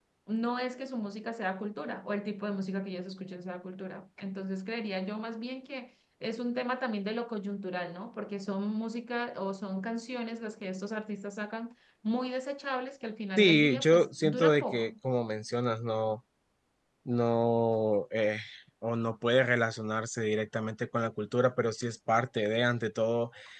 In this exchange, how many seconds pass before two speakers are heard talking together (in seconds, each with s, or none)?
13.4 s